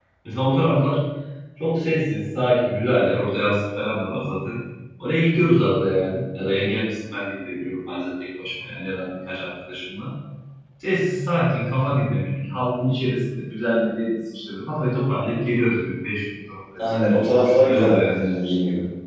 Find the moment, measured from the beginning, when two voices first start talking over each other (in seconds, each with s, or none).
16.8 s